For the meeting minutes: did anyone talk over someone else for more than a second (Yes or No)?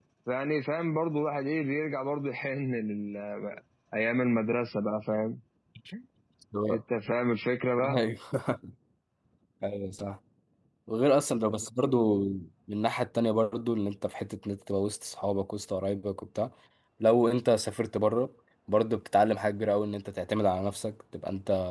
No